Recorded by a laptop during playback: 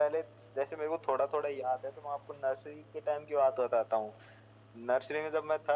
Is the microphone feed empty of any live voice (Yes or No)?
Yes